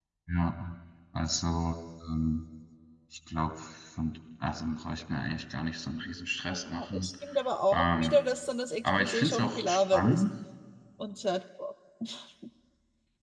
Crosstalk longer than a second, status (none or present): present